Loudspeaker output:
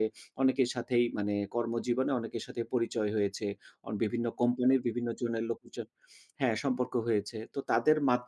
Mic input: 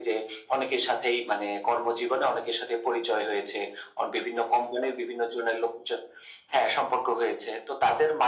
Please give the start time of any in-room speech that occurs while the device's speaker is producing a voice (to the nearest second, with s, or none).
none